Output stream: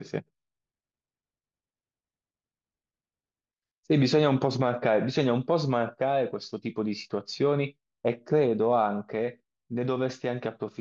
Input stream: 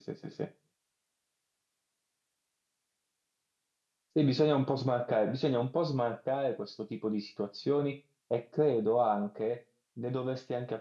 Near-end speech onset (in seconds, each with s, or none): none